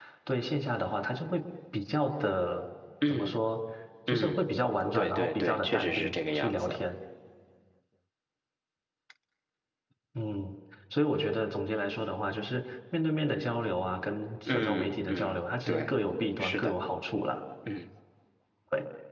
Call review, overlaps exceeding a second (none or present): present